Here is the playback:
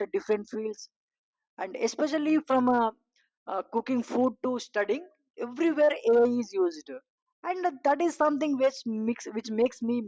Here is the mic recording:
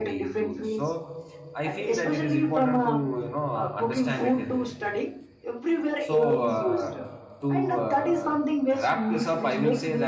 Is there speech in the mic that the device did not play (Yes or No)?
Yes